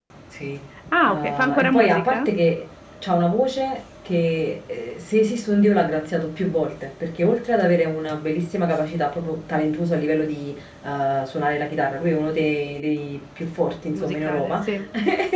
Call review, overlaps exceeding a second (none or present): present